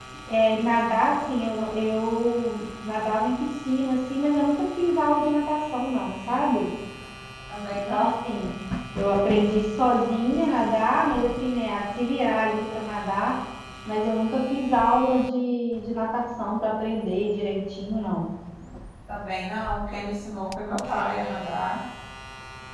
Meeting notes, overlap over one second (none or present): none